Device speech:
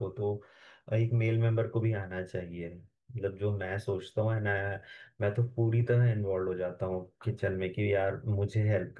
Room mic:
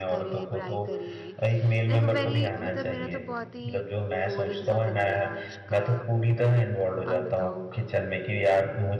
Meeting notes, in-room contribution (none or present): present